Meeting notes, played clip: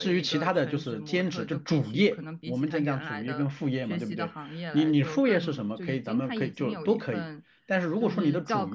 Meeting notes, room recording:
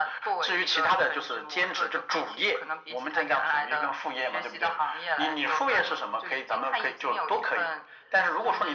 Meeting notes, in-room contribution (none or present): none